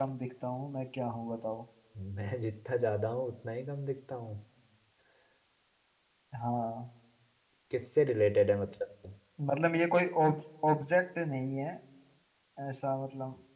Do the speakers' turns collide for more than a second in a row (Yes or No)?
No